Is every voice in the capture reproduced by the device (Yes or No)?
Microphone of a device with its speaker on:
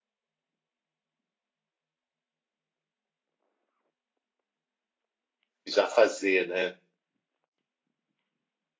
No